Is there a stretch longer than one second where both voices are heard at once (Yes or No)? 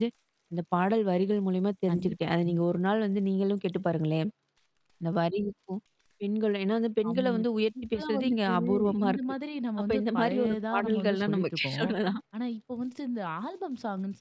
Yes